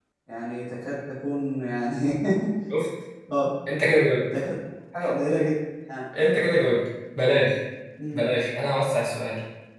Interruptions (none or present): none